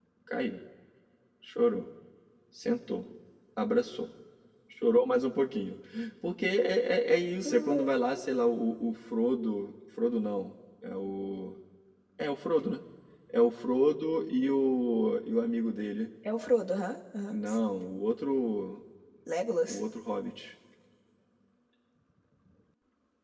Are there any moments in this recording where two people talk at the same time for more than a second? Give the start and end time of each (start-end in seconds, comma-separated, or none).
none